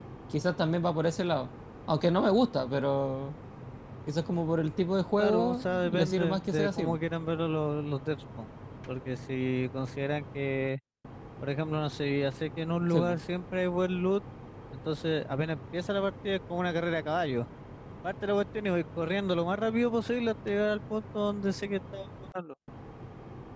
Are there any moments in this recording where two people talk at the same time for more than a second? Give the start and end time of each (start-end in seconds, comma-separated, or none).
5.2-7.0